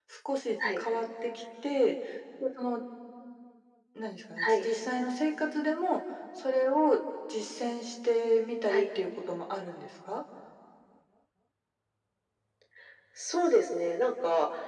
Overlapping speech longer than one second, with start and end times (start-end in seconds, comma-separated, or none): none